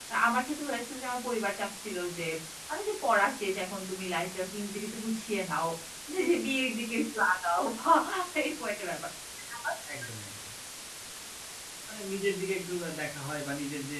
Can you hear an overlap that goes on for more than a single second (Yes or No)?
No